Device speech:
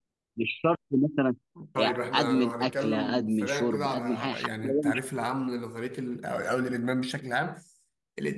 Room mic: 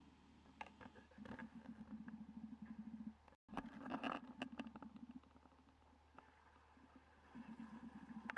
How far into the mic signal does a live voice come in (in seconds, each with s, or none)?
none